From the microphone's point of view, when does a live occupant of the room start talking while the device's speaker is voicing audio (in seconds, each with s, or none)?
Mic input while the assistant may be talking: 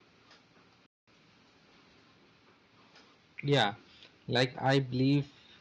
3.4 s